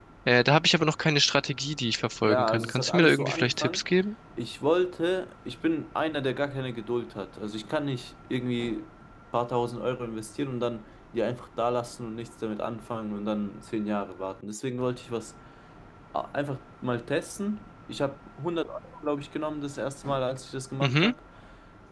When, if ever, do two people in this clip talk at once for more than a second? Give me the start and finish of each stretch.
2.2-3.8

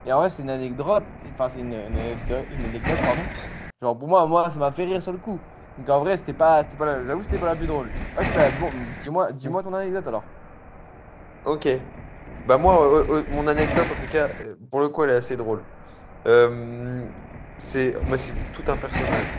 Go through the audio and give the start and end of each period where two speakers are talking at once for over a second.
none

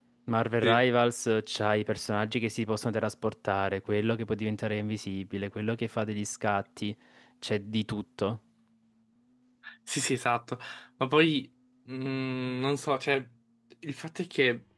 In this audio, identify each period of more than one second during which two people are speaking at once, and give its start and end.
none

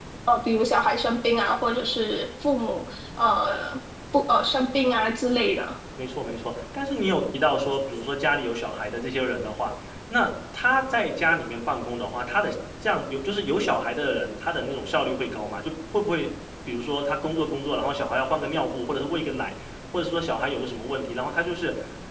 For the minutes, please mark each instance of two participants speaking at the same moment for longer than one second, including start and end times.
none

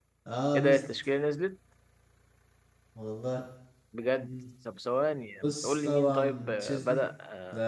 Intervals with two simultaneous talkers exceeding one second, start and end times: 5.4-7.1

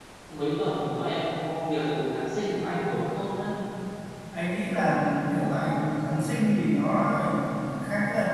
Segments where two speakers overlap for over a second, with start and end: none

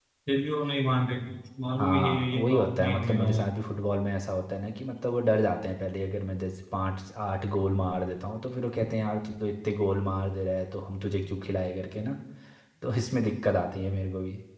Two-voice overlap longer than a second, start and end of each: 1.8-3.5

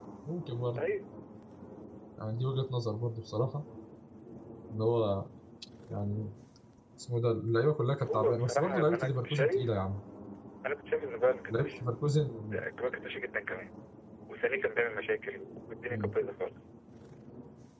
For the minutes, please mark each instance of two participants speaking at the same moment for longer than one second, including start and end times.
8.0-9.6

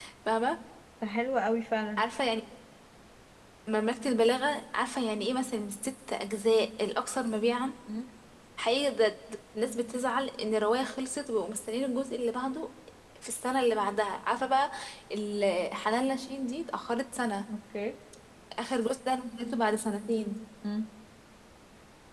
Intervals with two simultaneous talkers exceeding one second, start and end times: none

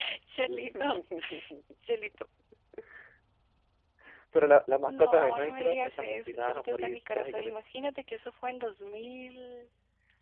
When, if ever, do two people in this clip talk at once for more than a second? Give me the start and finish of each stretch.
4.9-7.5

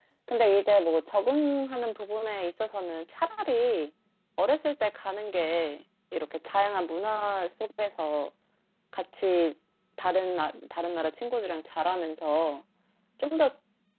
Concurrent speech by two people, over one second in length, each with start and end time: none

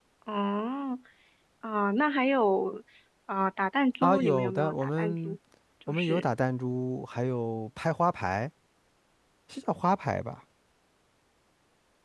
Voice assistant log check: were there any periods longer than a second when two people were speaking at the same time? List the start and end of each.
4.0-5.4

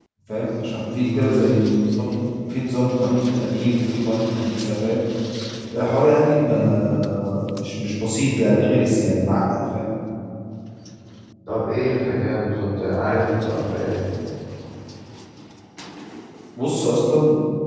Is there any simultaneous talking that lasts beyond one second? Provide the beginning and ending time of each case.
none

